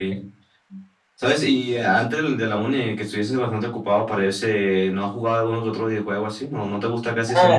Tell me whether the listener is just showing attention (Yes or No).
No